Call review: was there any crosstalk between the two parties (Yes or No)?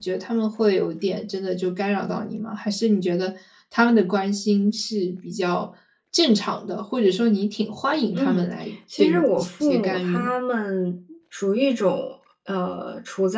Yes